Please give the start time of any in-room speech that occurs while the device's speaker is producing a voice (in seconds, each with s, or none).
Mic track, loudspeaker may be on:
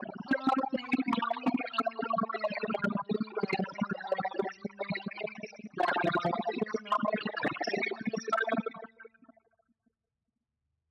none